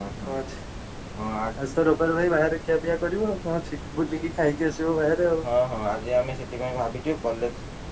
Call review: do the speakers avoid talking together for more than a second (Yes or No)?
Yes